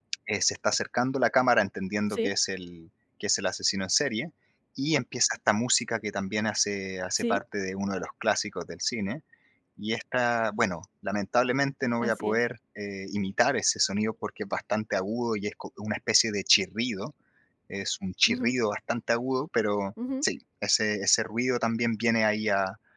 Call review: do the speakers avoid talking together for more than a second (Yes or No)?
Yes